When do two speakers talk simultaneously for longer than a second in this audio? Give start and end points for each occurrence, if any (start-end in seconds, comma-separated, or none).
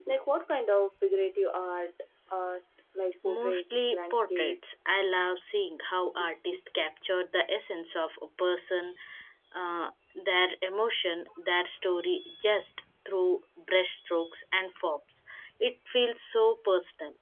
3.2-4.9